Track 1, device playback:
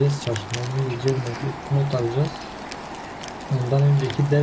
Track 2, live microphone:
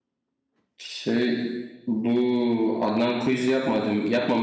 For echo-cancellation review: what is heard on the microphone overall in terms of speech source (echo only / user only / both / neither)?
user only